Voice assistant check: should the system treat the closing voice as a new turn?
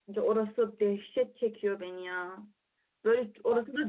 No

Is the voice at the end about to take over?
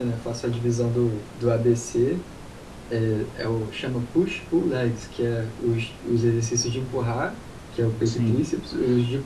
No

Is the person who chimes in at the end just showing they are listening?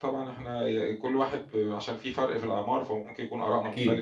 No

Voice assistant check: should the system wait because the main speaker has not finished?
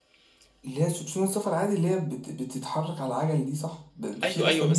No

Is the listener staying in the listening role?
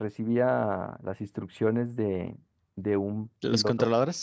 Yes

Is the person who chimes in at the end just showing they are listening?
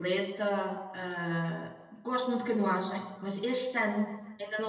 Yes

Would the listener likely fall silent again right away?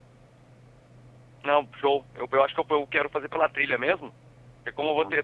Yes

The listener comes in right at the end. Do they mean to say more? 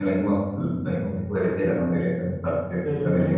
Yes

